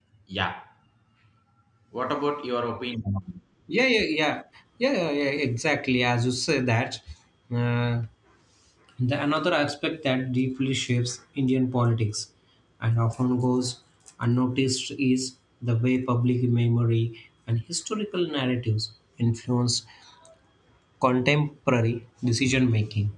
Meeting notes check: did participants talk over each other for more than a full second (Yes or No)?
No